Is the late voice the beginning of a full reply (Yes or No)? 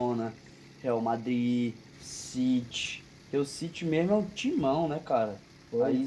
Yes